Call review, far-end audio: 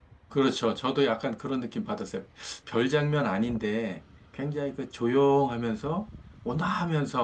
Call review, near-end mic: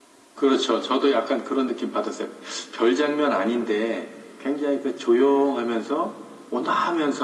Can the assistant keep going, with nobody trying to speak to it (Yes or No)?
Yes